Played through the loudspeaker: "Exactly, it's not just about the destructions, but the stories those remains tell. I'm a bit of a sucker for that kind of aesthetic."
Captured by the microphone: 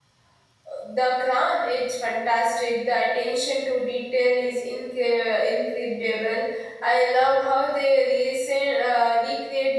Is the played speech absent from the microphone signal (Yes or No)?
Yes